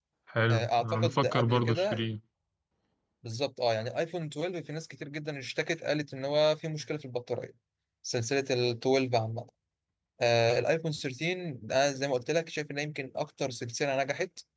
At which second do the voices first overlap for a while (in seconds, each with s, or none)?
0.5 s